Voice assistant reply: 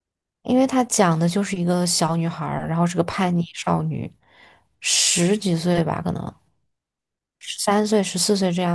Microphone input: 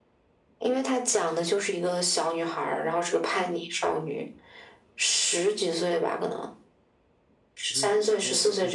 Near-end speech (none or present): present